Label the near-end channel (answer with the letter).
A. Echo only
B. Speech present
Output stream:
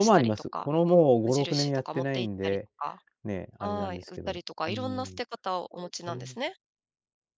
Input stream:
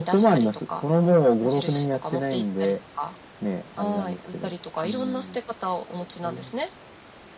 A